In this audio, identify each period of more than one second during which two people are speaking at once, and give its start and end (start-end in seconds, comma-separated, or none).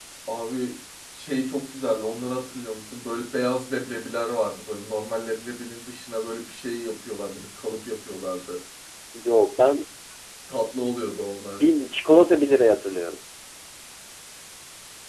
none